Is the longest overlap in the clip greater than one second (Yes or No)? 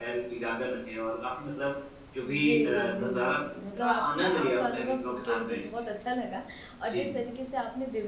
Yes